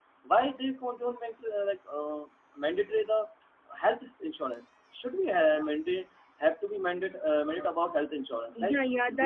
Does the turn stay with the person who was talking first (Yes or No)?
No